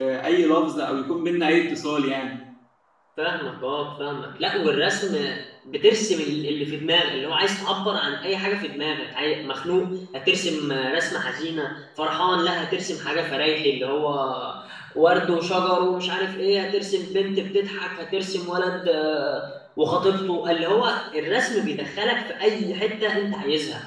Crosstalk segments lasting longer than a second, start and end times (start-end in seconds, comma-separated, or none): none